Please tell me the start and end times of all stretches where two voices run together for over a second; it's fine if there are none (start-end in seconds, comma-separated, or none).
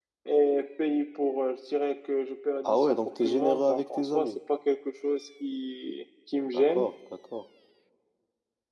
2.6-4.4